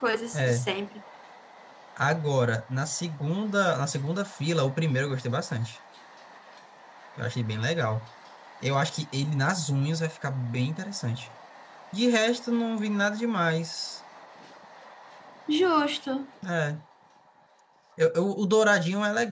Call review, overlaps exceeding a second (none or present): none